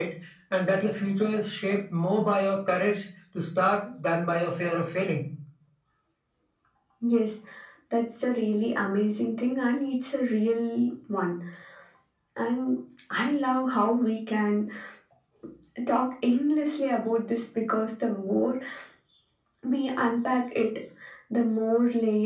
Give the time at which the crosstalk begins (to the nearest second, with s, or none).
none